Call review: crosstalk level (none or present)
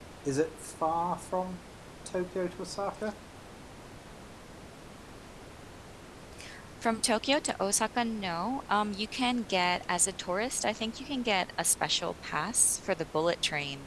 none